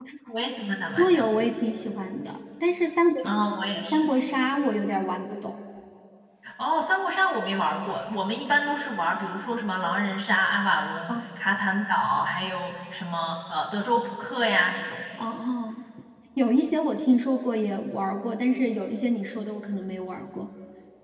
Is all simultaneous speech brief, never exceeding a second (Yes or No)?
Yes